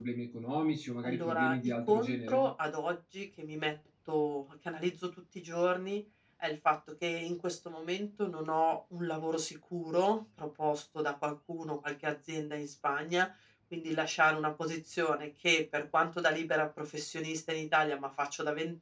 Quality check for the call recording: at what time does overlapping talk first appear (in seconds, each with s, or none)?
1.0 s